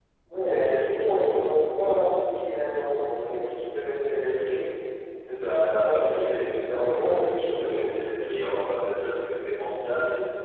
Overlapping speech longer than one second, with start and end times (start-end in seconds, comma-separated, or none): 5.4-7.9